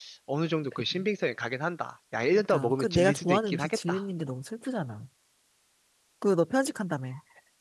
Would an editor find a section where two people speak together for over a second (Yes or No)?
Yes